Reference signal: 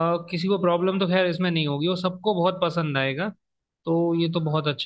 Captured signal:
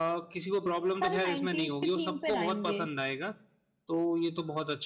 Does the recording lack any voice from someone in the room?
No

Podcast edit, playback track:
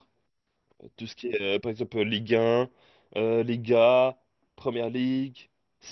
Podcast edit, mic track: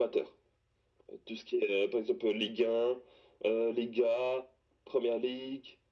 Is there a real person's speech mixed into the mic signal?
No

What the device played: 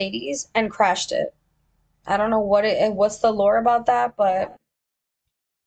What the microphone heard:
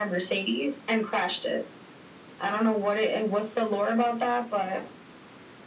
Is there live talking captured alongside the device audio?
No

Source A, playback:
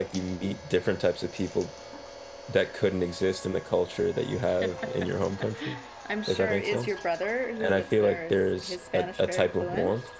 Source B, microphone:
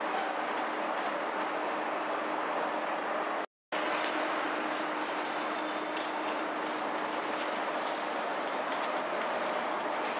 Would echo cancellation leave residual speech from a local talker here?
No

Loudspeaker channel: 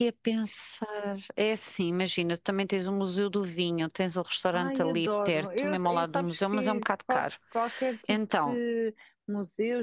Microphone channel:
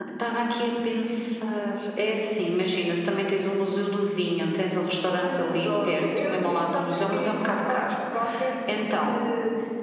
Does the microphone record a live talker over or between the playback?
No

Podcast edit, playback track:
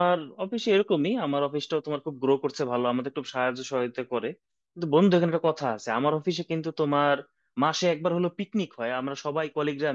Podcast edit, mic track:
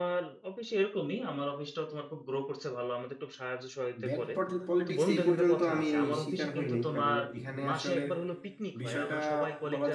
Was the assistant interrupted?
Yes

